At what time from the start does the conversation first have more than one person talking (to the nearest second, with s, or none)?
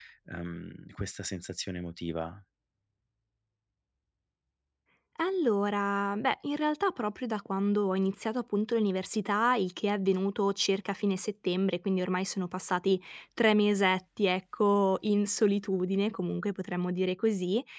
none